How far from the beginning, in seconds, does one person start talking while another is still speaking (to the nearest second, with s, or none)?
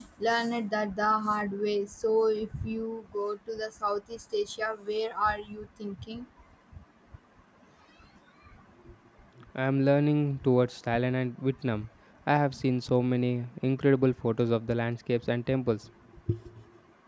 none